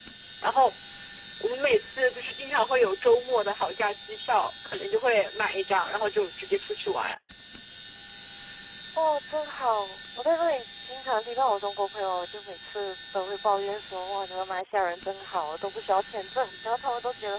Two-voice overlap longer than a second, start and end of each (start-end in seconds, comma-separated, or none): none